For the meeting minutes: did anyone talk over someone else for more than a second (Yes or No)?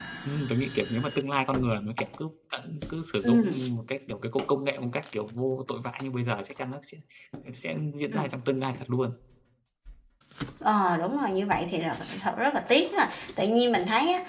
No